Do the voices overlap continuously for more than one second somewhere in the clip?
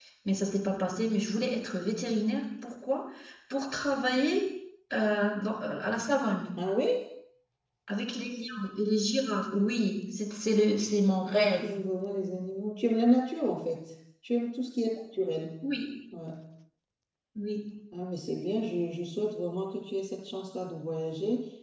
No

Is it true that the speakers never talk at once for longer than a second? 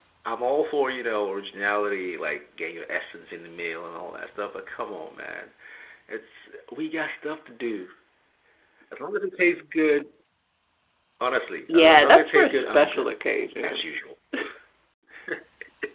No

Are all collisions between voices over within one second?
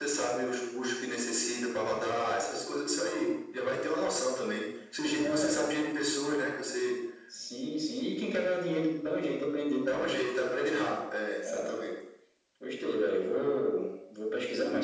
Yes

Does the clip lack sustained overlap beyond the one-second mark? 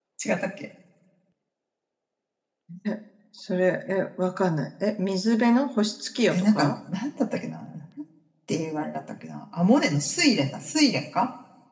Yes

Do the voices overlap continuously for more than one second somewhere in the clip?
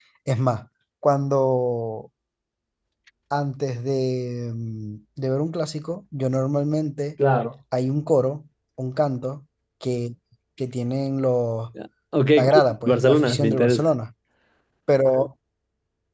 Yes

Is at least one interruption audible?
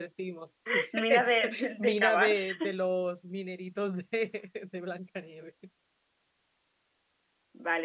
Yes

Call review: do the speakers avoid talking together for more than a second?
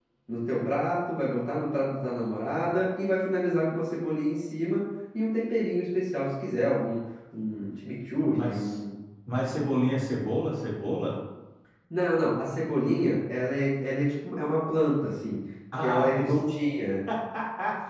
Yes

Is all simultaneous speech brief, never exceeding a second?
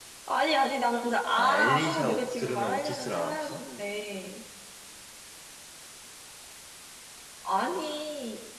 No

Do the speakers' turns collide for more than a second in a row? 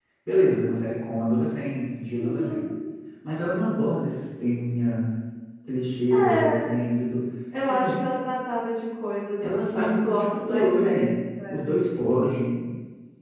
Yes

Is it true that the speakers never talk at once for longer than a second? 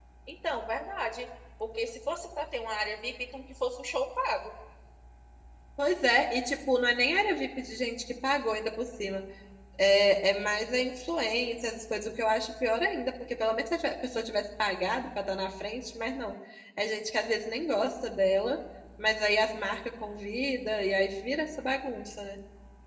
Yes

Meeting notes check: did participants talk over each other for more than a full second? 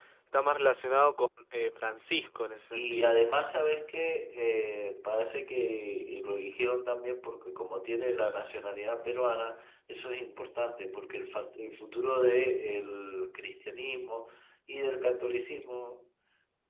No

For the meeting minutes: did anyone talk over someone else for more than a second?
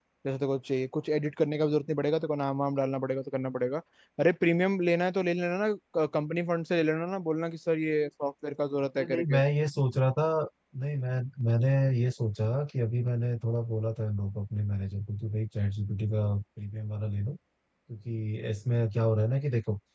No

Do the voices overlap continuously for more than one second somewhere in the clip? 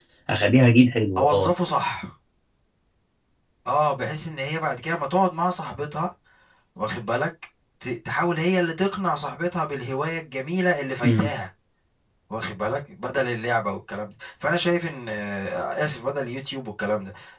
No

